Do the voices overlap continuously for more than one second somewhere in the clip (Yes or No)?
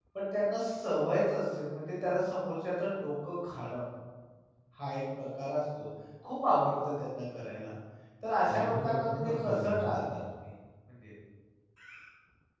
Yes